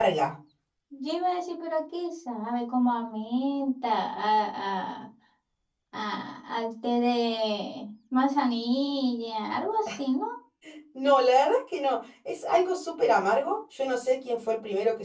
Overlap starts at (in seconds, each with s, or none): none